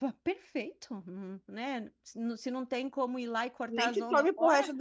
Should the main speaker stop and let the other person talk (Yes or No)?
Yes